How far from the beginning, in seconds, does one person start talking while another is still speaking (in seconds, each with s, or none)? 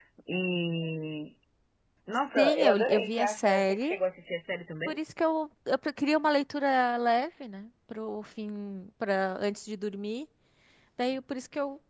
2.4 s